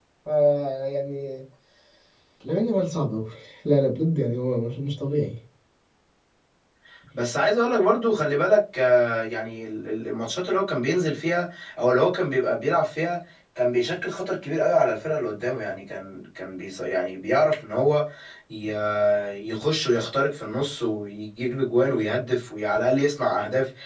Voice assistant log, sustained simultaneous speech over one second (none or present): none